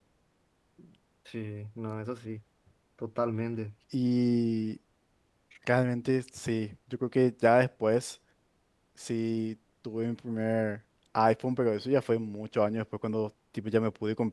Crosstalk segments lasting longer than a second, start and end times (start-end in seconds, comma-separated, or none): none